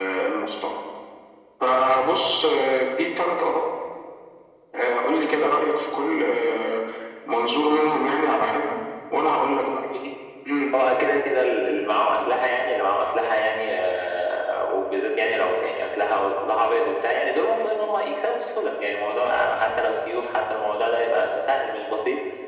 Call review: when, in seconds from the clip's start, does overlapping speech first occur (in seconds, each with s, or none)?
none